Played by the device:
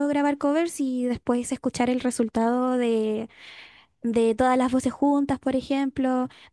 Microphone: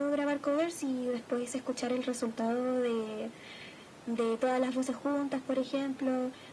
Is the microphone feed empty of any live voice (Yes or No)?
Yes